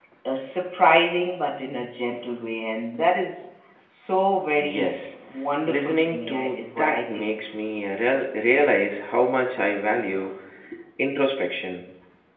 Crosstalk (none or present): present